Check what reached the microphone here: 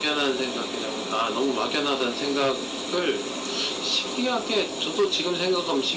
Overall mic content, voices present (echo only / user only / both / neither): echo only